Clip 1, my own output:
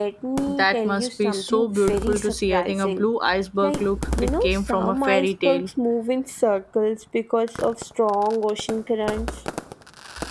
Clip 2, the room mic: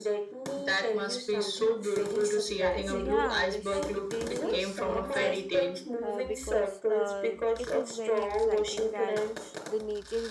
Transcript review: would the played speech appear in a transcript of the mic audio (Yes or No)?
Yes